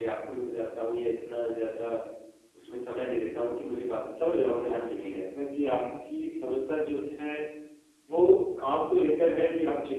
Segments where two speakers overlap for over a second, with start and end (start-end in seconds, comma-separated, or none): 4.2-5.5